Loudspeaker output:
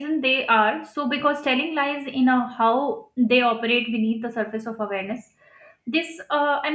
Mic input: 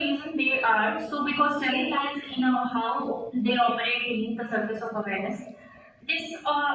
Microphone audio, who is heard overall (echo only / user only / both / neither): echo only